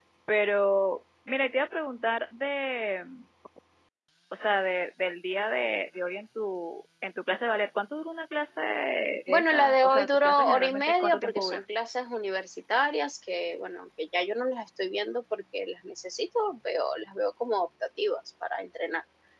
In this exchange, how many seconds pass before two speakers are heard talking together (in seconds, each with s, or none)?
9.3 s